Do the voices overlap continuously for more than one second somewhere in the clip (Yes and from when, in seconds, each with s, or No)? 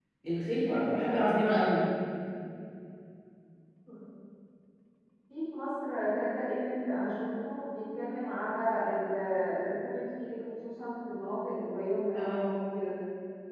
No